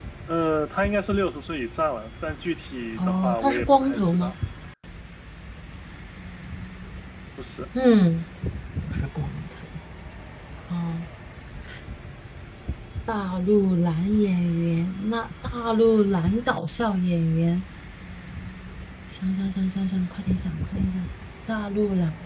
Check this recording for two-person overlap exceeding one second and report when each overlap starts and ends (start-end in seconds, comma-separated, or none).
3.0-4.3